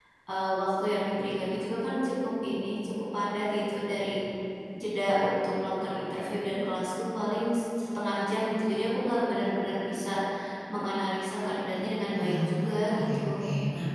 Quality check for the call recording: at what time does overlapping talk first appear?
12 s

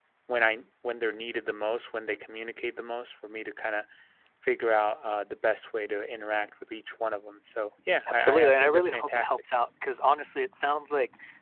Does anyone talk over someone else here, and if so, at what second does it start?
8 s

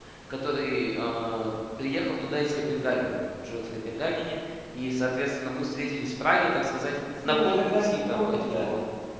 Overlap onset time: 7 s

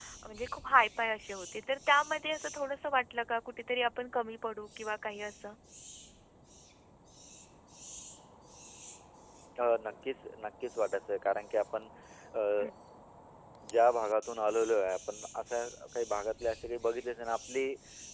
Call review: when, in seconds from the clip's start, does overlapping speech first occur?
none

